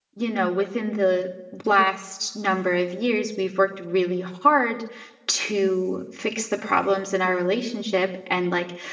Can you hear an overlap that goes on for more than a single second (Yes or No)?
No